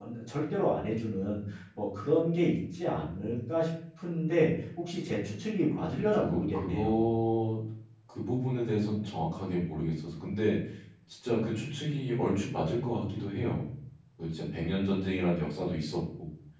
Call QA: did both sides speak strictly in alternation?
No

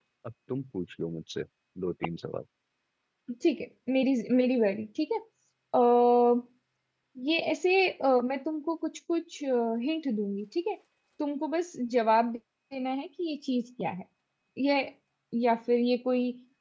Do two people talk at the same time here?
No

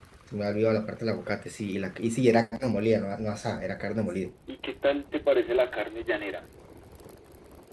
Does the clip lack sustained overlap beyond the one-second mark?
Yes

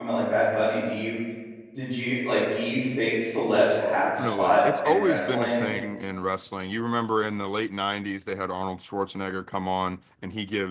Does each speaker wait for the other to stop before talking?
No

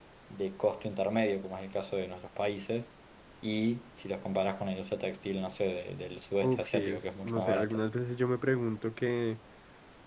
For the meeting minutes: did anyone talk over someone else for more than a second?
Yes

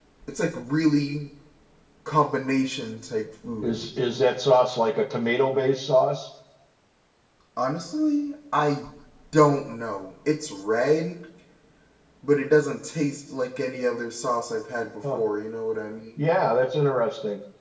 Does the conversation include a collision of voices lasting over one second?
No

